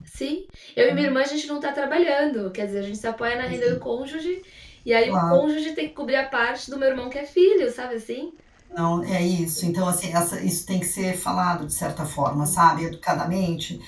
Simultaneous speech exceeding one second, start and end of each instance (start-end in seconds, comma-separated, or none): none